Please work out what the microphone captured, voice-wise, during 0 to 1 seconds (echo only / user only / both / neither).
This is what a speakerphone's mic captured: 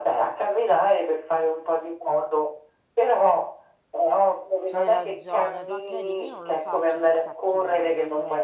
echo only